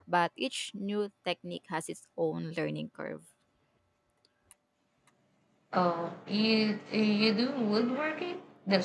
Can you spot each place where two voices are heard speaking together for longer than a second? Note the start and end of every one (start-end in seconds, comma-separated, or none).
none